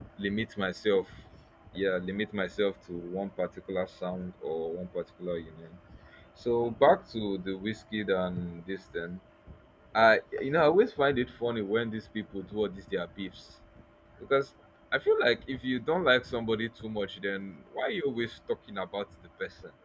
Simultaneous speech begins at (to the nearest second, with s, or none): none